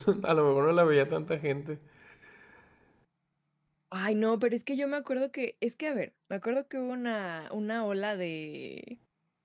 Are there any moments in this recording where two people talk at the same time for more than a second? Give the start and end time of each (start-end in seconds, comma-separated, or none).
none